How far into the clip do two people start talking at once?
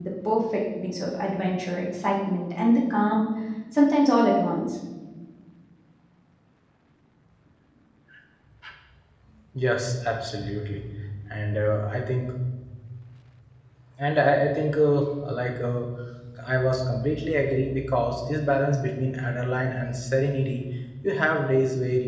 none

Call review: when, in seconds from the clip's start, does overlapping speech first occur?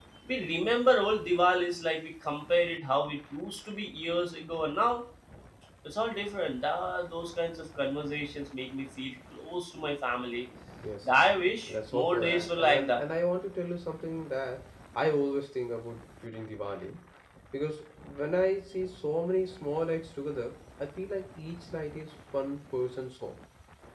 12 s

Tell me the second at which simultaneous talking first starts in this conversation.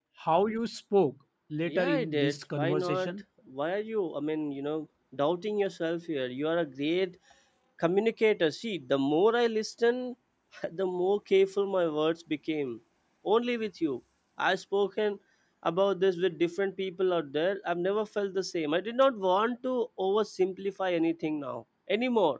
2 s

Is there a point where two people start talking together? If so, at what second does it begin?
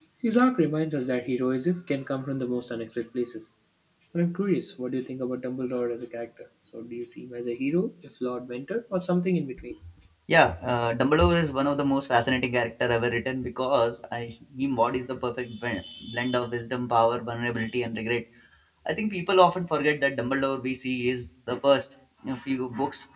none

